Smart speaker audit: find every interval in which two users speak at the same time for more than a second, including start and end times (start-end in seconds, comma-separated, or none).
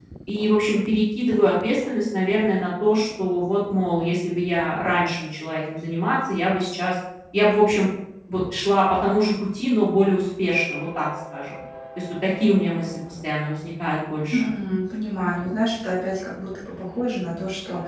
none